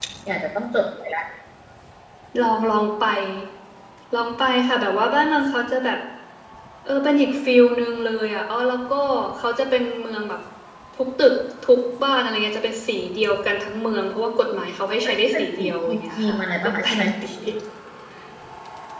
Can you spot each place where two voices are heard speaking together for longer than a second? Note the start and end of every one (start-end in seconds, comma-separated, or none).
15.0-17.0